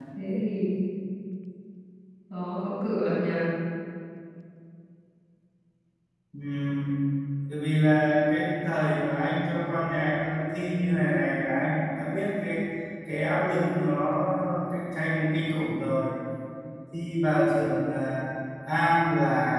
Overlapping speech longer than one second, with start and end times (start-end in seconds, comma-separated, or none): none